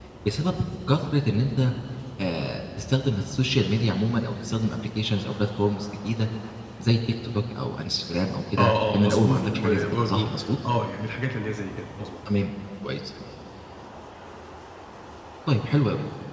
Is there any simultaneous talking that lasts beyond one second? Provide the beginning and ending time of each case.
8.6-10.3

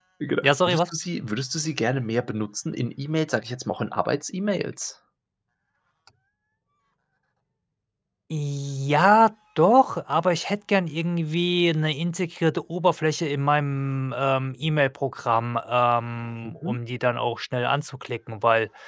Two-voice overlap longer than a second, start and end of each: none

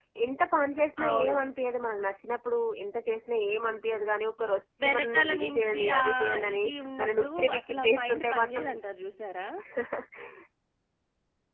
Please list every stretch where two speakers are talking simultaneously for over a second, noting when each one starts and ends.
4.8-6.6, 7.0-8.6

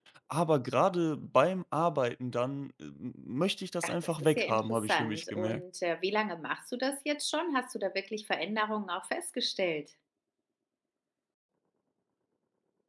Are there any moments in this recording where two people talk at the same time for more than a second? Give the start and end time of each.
3.8-5.6

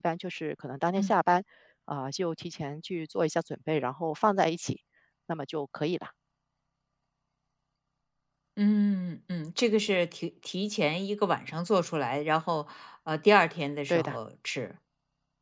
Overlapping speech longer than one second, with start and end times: none

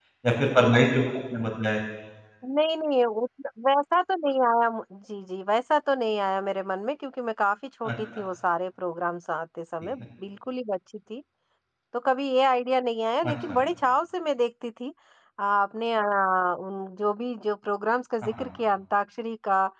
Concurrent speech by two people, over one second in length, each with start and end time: none

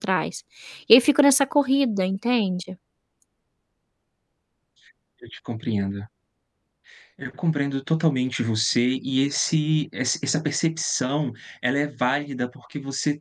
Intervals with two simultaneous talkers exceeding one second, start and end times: none

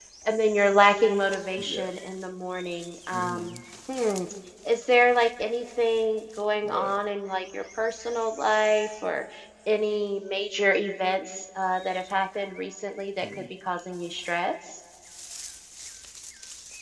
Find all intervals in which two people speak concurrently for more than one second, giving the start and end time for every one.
none

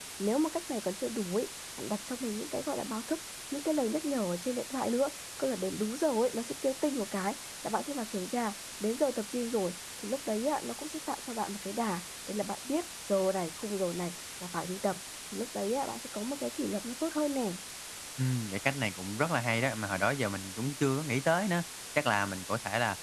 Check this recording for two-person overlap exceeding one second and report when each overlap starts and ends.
none

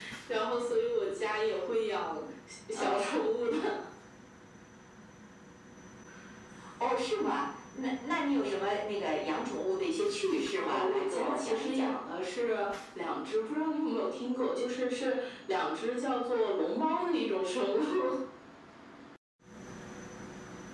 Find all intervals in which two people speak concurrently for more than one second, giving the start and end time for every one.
10.6-11.9

